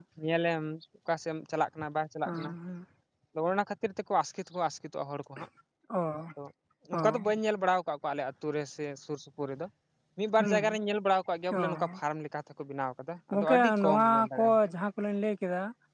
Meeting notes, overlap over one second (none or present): present